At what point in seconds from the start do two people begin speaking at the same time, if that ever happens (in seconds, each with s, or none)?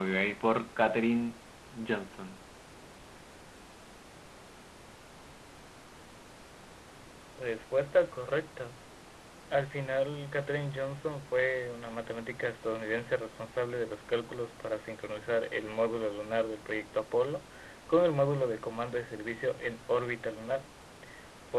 none